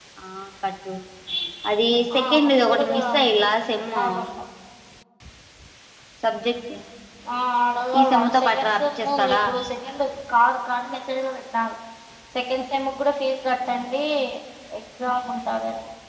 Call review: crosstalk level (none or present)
present